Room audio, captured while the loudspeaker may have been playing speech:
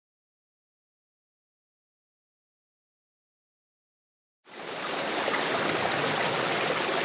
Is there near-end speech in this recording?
No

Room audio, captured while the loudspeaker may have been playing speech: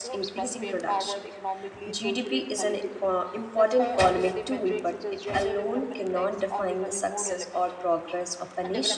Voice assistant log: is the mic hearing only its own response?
No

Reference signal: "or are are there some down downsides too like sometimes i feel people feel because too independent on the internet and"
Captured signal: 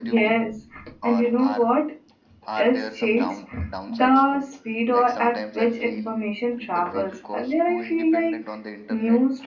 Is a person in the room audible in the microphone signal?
Yes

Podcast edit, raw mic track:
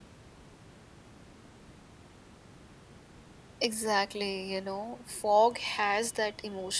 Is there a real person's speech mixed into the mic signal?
Yes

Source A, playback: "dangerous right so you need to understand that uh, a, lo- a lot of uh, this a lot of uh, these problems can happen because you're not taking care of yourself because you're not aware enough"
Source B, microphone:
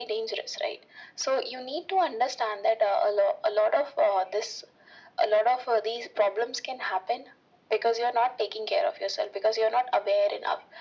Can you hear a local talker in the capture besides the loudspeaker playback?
No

